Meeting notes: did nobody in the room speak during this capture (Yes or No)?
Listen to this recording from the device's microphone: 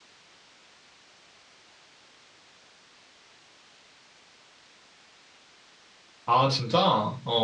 No